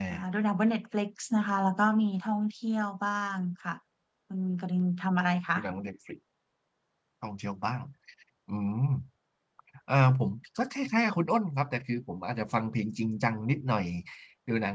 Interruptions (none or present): none